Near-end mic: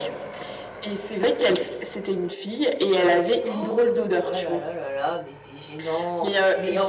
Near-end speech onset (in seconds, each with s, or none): 3.5 s